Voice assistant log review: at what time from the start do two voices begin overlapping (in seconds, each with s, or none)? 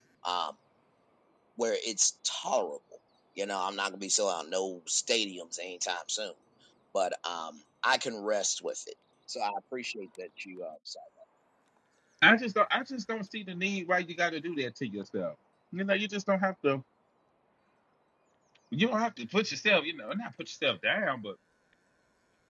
none